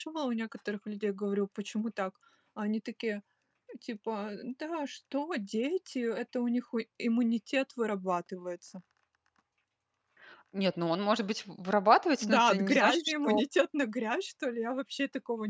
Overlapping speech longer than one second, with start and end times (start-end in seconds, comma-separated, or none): 12.2-13.4